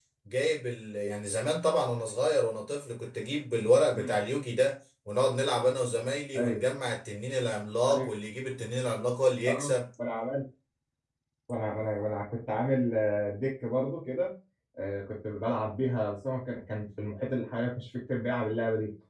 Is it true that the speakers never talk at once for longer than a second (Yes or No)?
Yes